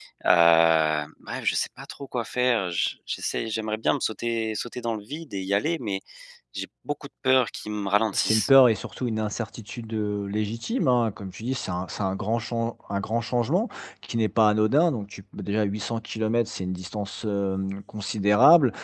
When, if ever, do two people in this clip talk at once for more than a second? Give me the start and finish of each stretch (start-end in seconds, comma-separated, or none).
none